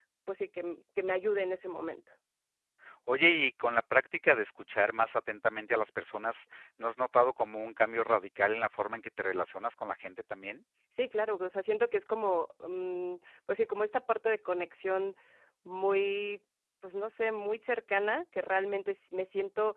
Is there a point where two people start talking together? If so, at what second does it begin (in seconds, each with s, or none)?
none